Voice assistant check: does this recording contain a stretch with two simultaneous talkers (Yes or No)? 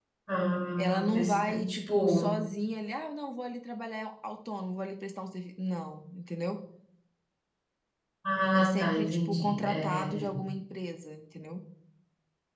Yes